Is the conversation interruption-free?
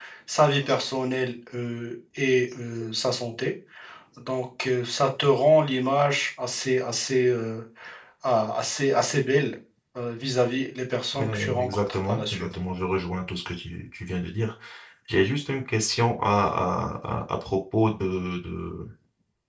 No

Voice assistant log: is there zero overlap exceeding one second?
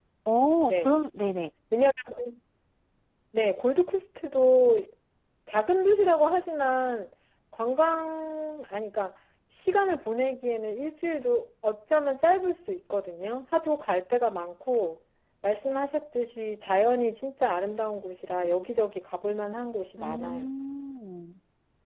Yes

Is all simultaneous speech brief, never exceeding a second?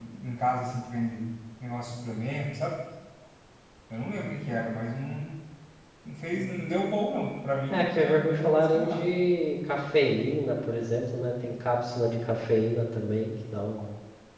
No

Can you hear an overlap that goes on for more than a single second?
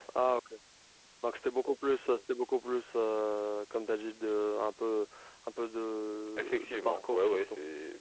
Yes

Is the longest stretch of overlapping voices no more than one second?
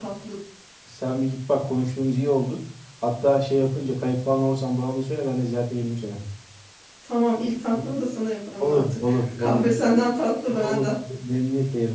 No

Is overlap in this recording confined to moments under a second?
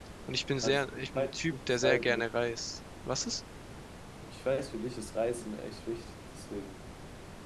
No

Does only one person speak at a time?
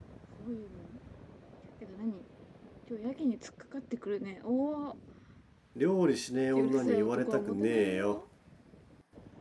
No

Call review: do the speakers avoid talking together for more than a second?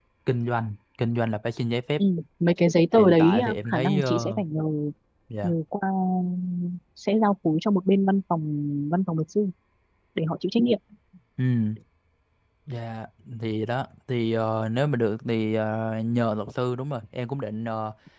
No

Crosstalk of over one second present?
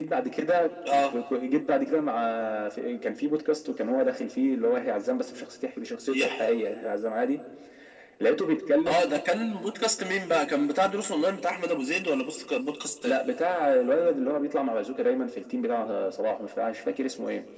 No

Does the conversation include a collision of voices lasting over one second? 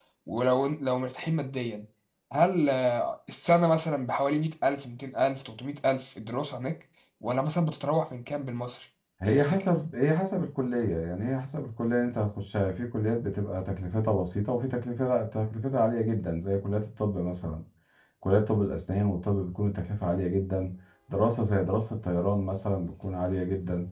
No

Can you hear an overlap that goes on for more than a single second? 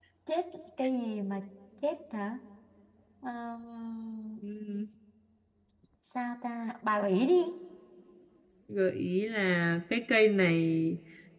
No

